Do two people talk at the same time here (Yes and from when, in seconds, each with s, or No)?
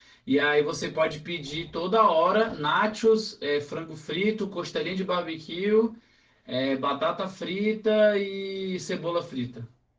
No